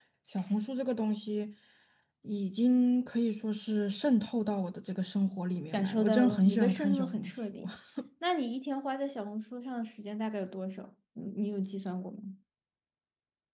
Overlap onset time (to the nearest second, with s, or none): 6 s